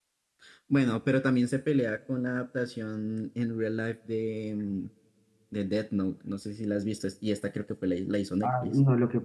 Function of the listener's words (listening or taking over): taking over